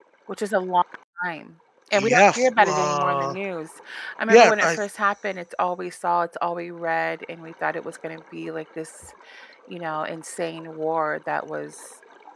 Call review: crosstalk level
present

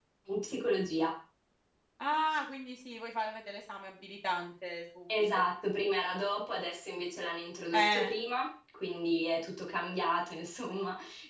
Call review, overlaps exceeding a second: none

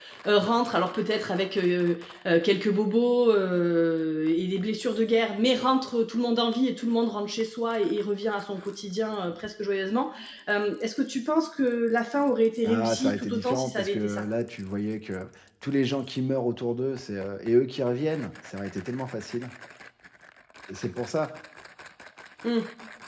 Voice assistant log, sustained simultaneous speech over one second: present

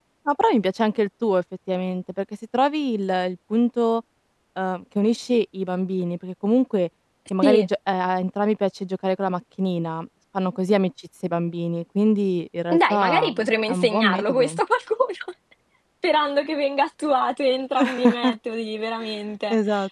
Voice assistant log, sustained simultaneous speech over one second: present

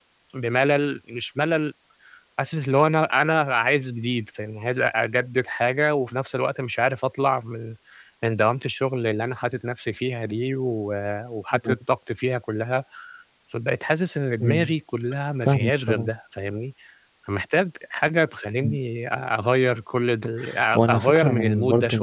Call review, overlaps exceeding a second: present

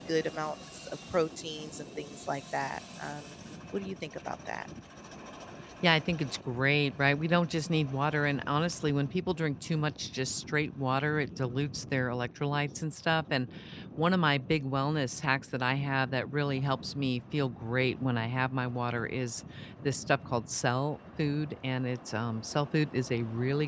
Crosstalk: none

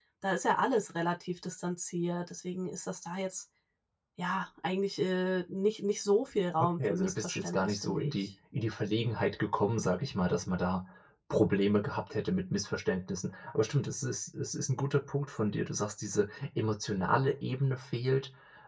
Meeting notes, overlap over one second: present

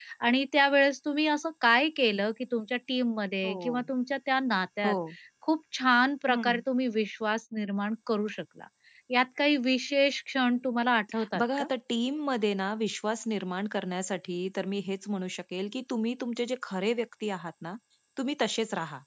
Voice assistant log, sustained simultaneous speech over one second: none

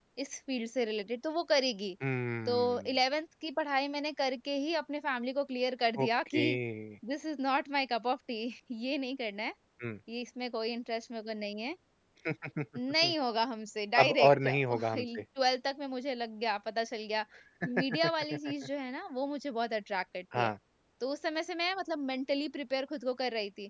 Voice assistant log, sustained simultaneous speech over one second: present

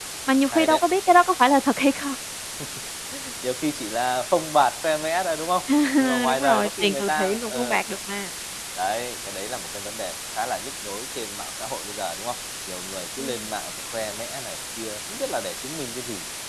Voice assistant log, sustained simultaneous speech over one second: present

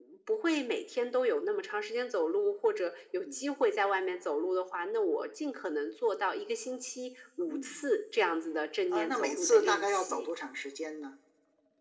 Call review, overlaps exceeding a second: present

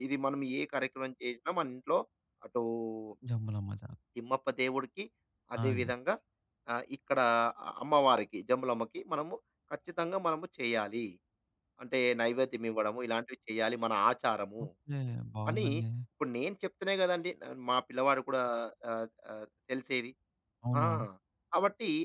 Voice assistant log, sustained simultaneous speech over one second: none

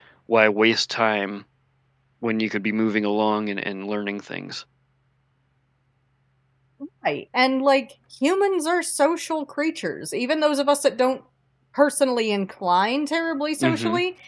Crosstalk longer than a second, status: none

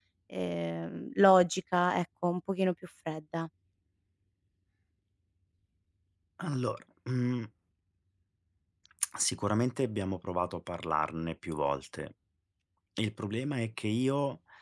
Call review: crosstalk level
none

